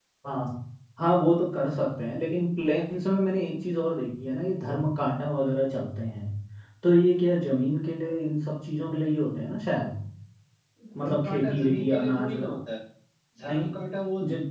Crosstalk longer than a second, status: present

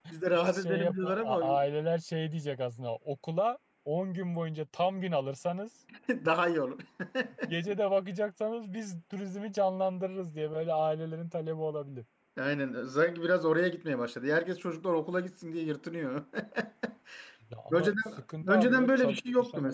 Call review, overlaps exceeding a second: present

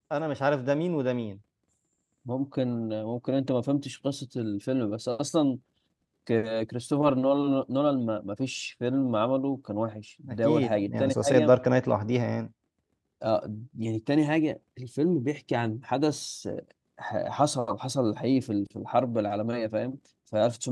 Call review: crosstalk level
present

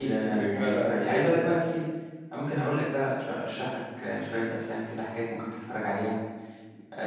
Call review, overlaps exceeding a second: present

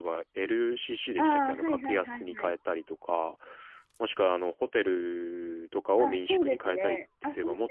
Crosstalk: present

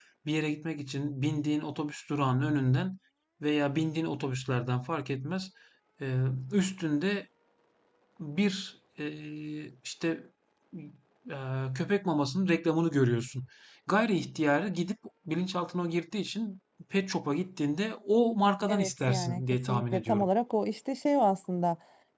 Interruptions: present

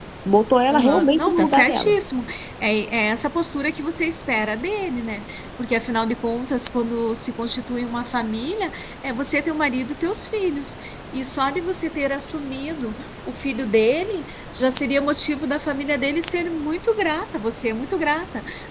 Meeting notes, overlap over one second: present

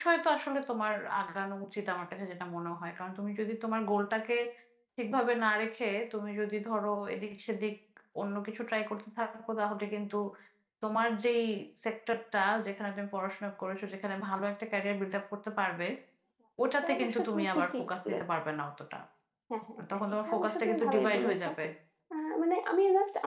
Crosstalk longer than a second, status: present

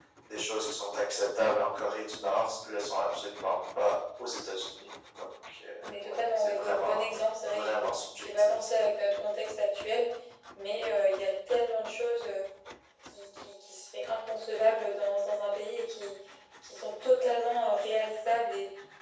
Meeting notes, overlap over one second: present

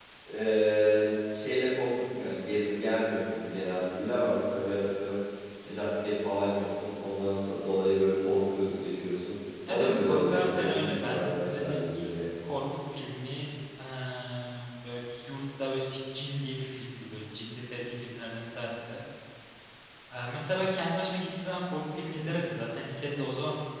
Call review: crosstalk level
present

